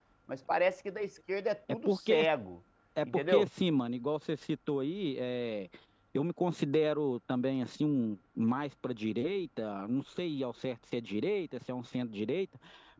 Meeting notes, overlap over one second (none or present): none